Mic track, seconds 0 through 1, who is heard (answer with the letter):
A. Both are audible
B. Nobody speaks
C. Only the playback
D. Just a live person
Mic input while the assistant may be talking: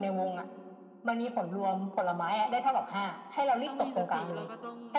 C